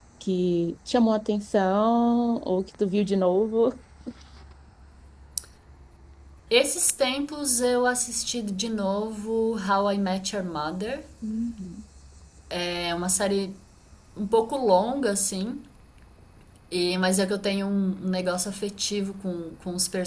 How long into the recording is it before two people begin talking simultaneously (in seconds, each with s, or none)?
none